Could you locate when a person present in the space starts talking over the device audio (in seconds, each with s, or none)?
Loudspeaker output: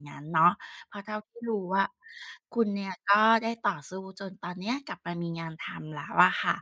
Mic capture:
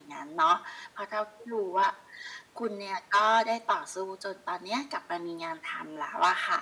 none